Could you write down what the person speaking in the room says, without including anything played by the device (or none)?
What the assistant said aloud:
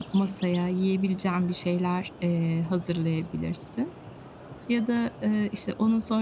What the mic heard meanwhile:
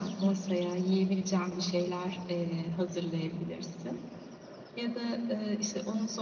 none